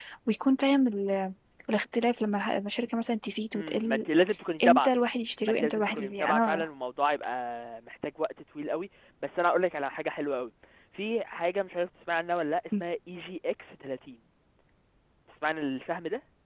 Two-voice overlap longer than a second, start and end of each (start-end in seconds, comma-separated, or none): 5.4-6.7